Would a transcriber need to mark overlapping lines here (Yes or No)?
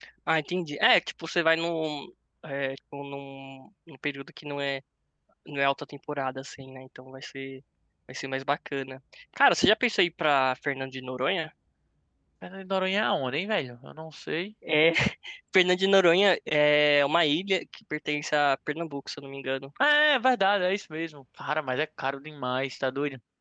No